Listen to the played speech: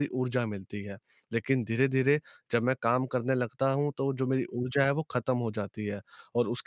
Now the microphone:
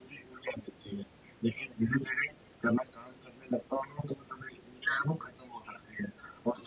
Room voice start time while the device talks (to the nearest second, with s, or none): none